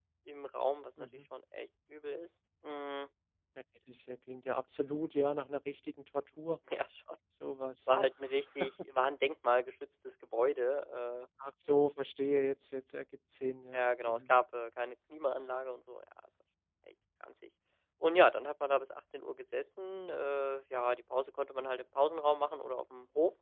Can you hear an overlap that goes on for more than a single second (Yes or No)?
No